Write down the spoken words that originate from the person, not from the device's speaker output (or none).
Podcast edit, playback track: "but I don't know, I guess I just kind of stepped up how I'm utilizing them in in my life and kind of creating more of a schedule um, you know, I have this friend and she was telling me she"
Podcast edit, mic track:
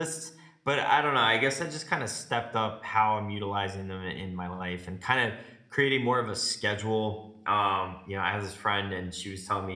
none